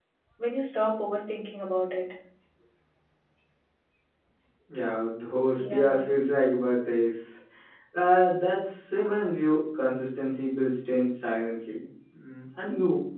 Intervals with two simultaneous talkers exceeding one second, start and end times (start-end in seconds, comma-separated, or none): none